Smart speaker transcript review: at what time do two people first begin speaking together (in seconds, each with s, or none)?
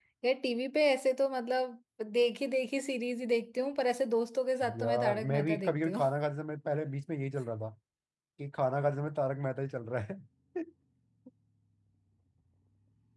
4.6 s